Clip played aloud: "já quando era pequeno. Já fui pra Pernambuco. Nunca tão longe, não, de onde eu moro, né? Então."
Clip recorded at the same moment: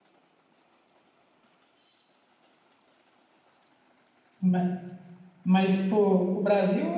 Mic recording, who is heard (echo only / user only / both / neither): user only